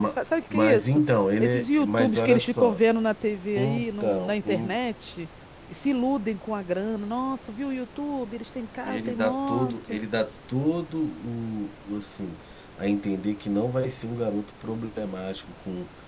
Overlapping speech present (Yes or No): Yes